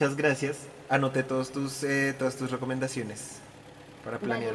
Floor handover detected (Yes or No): Yes